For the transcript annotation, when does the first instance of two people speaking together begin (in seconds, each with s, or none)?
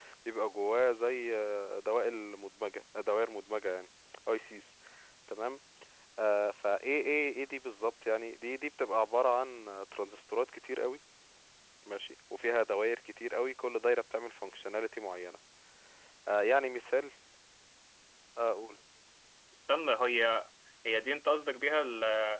none